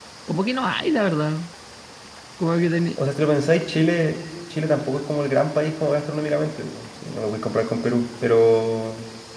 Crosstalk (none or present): none